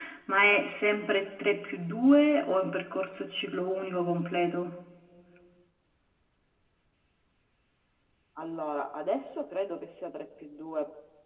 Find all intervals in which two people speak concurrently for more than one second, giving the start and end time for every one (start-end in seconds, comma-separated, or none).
none